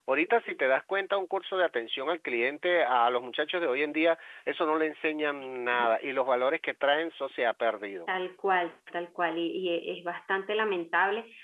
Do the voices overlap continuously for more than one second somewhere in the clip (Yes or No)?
No